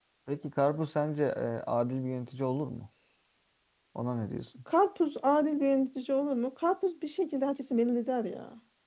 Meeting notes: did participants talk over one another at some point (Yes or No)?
No